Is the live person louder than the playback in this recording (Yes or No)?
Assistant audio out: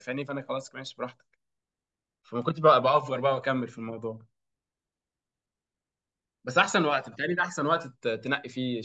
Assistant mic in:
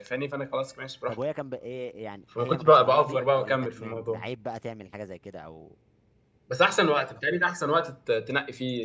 No